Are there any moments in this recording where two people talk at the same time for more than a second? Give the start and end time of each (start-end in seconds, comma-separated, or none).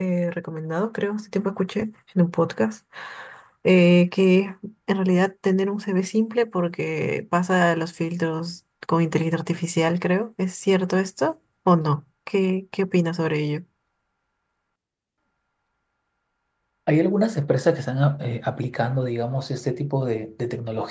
none